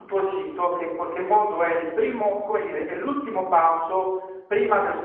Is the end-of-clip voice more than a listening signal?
No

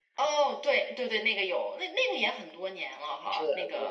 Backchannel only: No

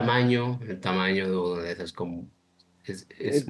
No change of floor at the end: No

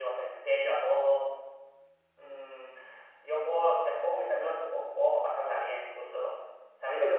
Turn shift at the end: No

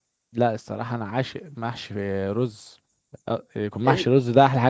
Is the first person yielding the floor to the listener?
No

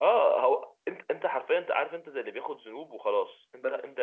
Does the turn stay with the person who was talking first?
Yes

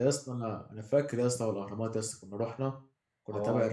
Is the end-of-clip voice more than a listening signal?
No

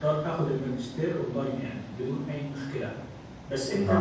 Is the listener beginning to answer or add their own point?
No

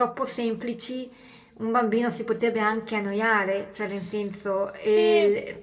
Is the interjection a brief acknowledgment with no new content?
Yes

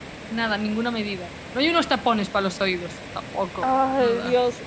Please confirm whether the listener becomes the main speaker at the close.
Yes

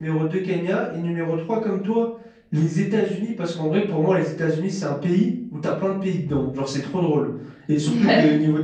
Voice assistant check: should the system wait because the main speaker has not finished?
Yes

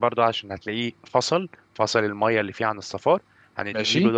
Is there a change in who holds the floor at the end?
No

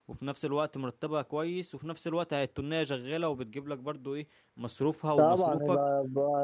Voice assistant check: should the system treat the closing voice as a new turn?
Yes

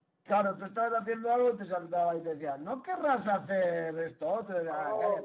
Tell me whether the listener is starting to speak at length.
Yes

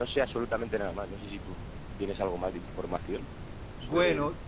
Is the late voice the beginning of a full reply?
Yes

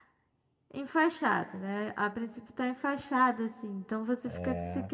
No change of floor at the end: Yes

